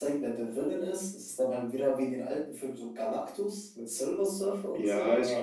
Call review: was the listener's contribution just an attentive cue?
No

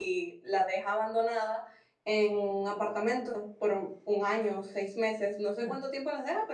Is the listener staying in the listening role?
Yes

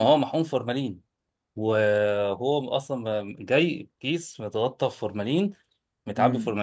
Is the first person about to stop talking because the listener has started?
No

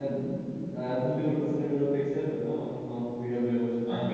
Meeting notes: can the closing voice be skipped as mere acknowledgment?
No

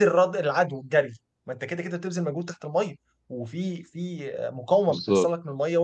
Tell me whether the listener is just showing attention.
Yes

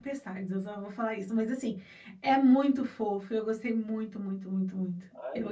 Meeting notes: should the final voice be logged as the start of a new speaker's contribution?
Yes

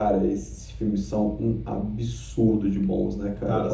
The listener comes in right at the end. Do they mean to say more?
Yes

